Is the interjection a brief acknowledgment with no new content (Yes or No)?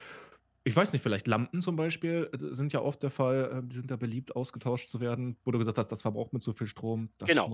No